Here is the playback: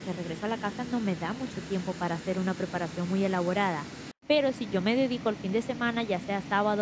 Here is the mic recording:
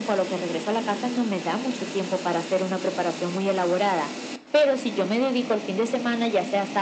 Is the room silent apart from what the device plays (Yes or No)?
Yes